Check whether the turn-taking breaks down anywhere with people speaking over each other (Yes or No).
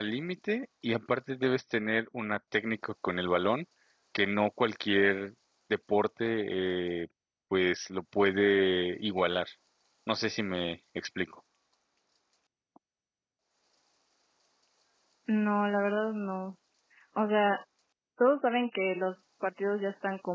No